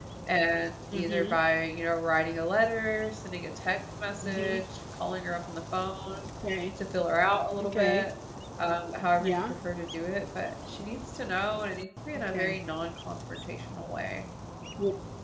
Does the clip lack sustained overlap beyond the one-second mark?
Yes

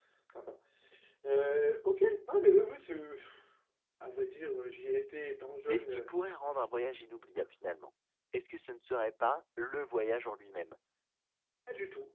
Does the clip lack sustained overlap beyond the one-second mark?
Yes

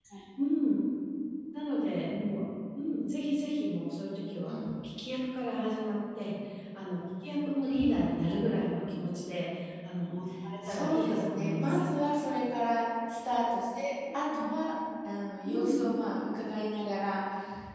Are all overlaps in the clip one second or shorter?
No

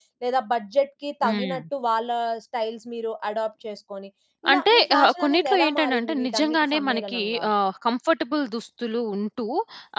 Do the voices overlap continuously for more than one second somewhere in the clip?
Yes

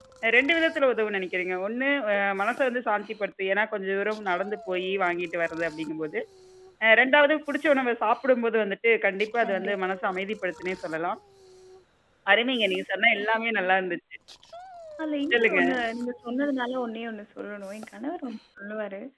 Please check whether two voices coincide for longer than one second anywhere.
No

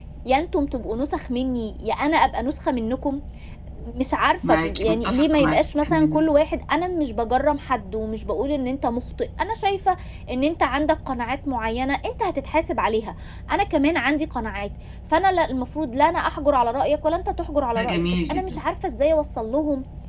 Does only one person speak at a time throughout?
No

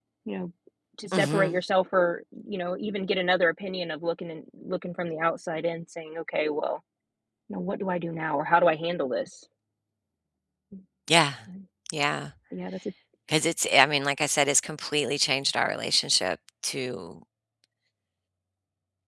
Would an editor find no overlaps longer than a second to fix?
Yes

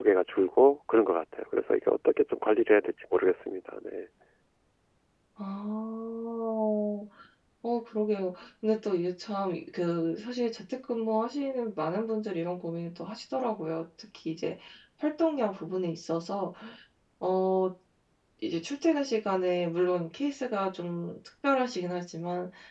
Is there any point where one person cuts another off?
No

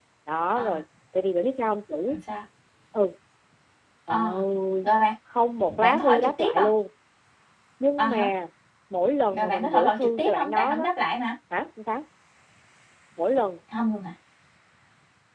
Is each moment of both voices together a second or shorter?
No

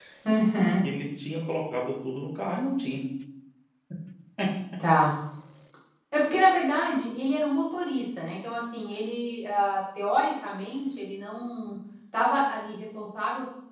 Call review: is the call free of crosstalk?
Yes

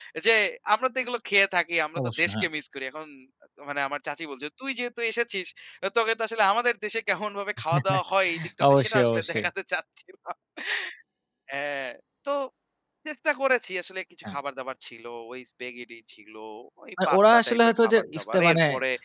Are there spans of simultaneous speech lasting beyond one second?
Yes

